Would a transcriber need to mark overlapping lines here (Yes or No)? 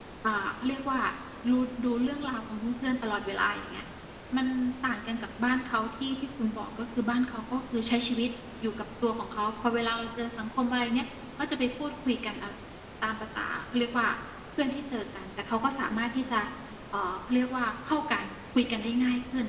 No